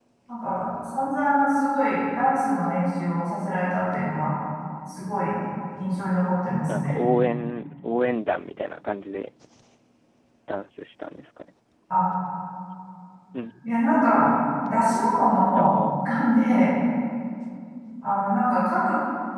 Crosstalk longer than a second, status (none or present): none